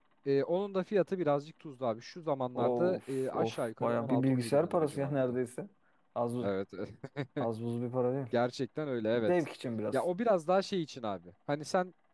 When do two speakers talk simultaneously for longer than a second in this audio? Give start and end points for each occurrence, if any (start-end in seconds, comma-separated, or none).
2.6-5.2